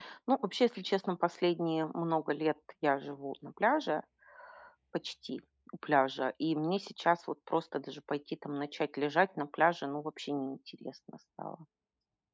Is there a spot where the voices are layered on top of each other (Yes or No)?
No